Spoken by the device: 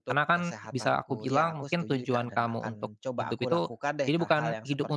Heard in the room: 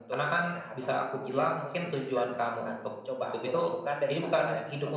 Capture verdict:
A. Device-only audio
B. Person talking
A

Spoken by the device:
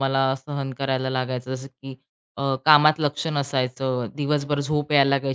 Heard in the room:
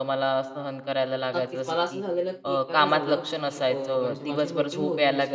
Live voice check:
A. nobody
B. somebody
B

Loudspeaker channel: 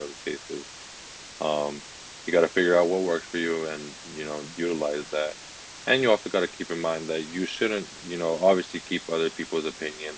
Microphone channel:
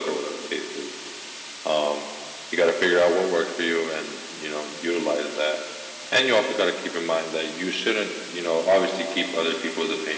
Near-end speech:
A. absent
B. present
A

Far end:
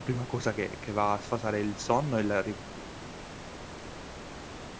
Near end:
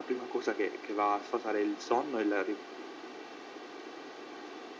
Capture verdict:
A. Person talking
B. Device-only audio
B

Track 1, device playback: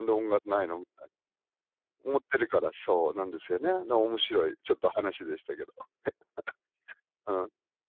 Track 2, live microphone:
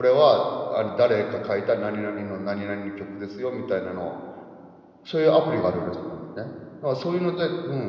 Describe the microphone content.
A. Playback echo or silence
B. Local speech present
B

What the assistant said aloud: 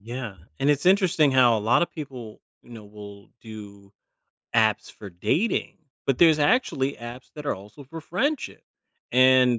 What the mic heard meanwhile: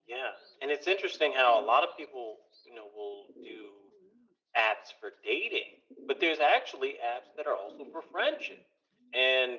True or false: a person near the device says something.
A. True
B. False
B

